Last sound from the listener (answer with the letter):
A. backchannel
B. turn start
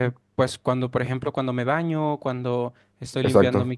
A